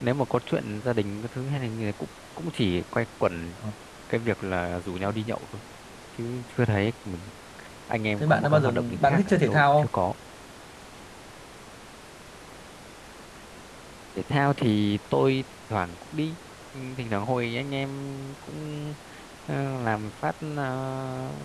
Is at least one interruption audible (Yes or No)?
Yes